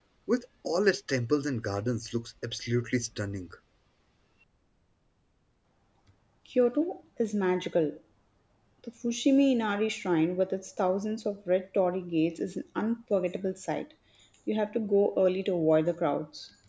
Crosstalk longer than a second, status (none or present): none